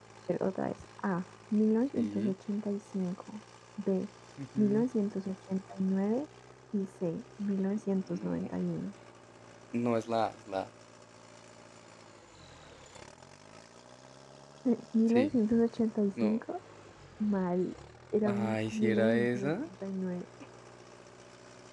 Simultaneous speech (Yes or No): Yes